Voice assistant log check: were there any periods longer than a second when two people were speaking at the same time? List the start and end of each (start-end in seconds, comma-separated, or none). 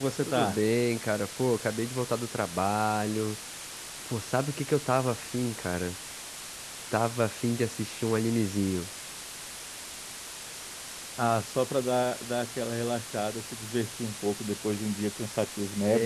none